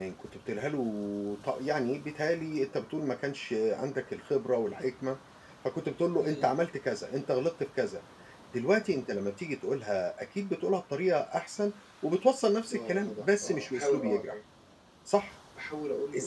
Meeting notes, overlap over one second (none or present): present